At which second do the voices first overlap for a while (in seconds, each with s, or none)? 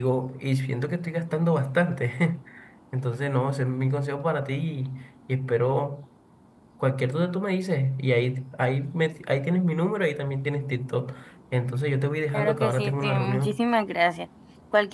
12.3 s